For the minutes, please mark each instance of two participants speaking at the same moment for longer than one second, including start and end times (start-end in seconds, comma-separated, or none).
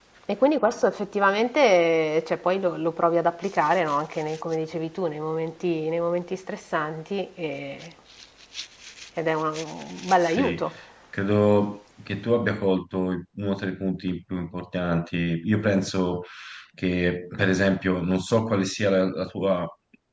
none